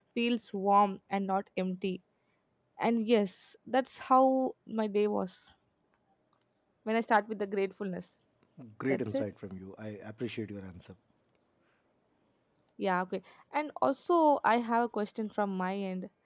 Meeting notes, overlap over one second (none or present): none